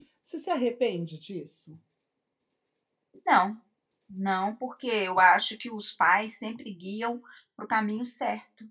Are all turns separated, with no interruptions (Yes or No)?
Yes